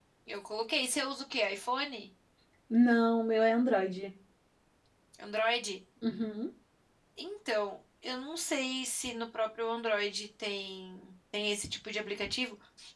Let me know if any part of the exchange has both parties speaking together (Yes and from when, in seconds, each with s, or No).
No